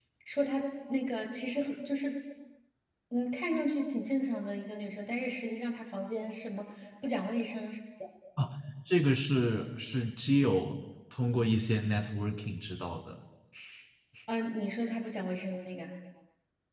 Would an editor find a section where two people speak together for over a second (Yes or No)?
No